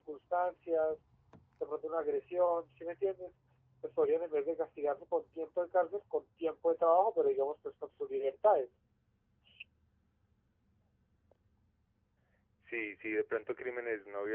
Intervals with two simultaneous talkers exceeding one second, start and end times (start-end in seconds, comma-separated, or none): none